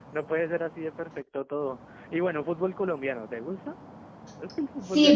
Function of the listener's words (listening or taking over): taking over